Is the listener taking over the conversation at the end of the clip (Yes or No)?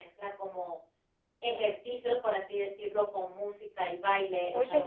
No